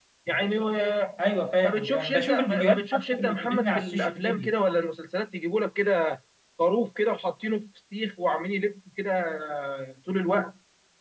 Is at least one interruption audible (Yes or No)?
Yes